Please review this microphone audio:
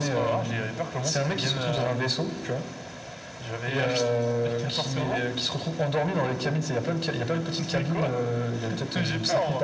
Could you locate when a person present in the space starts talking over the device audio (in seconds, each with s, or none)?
none